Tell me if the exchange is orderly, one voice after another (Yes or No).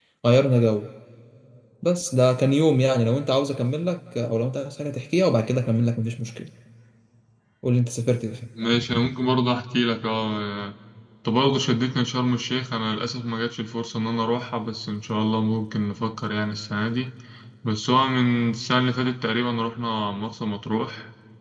Yes